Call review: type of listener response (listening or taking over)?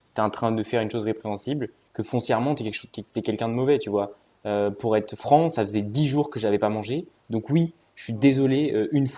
listening